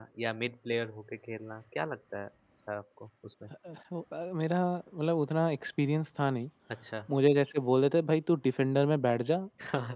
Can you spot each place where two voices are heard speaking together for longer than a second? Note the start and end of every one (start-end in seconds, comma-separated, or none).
none